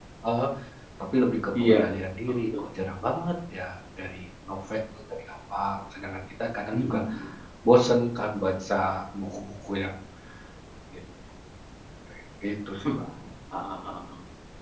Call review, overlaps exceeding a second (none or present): none